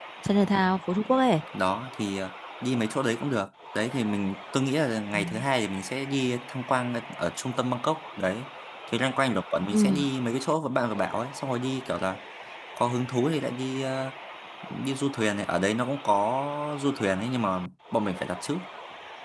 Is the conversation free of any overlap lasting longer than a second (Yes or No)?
Yes